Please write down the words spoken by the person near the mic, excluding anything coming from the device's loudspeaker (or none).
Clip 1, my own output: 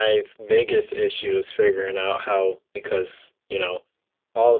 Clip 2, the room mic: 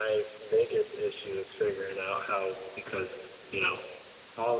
none